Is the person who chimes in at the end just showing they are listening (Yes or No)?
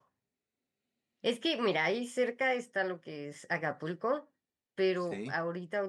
Yes